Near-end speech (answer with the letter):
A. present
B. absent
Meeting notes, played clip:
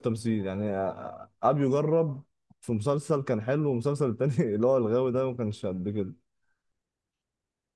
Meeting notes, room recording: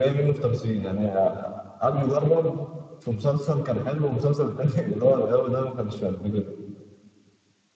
B